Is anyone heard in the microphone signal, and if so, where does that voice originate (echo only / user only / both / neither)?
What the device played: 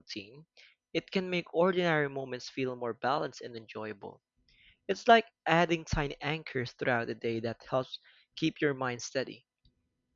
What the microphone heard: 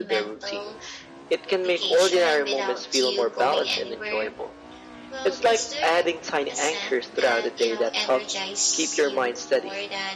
both